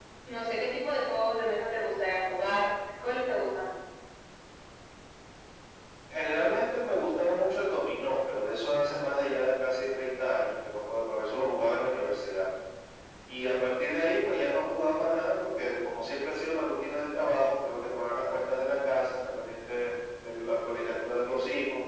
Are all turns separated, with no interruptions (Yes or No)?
Yes